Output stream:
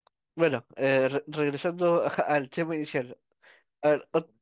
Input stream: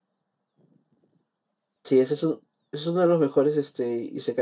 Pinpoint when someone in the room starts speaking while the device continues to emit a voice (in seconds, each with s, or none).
1.8 s